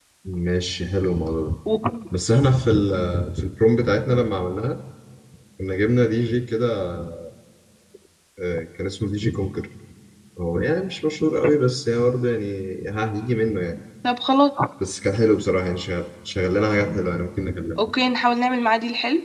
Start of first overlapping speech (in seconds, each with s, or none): none